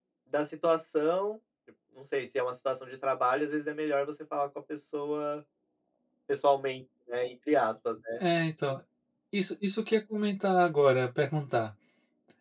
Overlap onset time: none

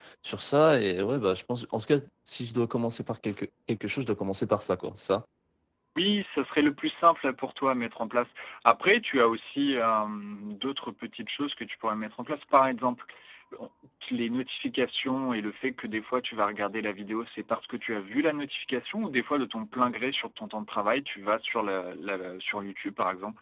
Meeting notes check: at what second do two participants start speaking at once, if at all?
none

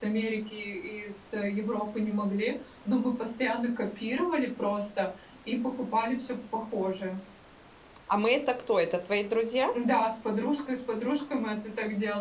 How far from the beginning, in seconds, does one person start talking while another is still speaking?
none

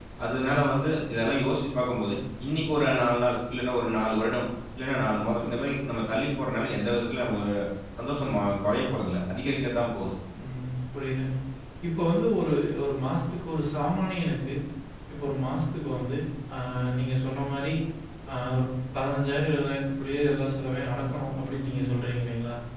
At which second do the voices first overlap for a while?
none

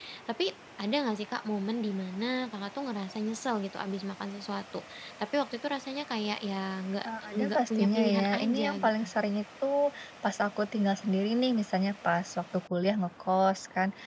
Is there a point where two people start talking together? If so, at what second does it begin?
7.0 s

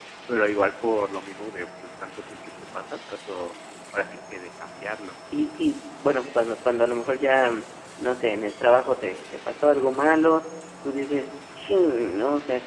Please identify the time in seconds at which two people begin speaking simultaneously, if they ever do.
none

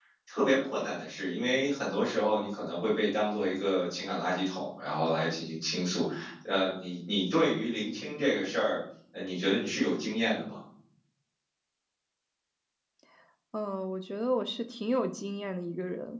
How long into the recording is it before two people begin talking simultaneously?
none

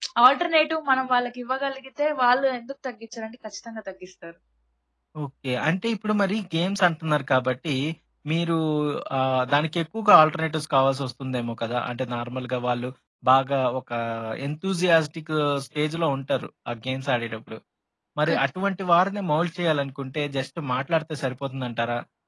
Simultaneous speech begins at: none

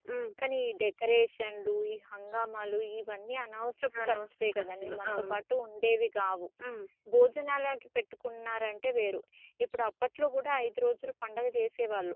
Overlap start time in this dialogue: 3.9 s

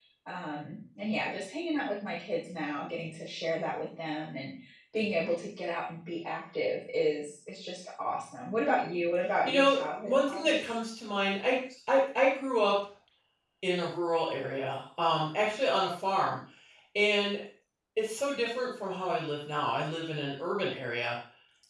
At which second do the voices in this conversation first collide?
9.4 s

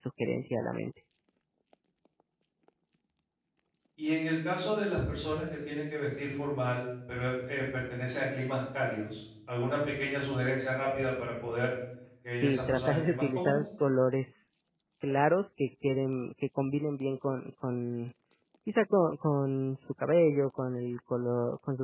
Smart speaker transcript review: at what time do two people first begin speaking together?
12.3 s

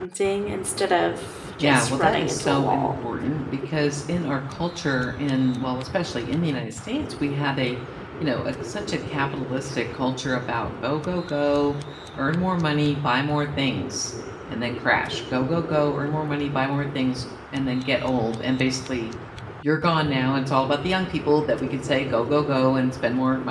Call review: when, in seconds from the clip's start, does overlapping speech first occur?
1.6 s

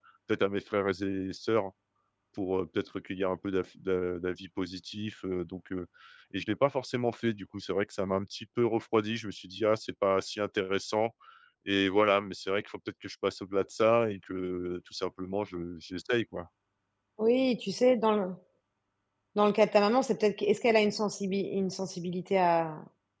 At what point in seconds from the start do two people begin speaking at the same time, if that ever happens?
none

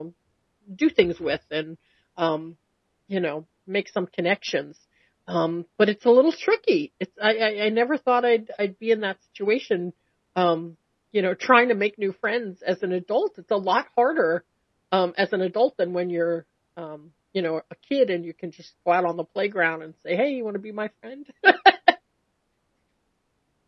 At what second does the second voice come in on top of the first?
none

